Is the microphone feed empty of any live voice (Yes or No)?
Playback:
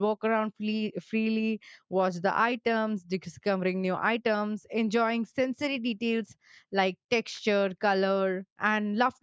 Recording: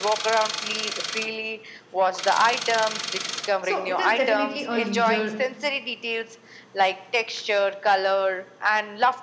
No